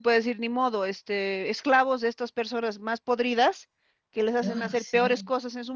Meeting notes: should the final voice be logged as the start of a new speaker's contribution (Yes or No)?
No